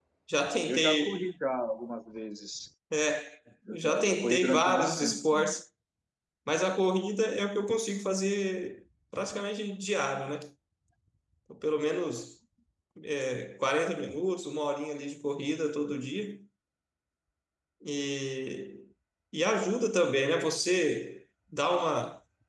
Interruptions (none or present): present